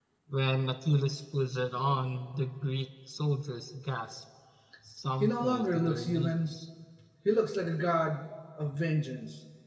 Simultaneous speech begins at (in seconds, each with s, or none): 5.2 s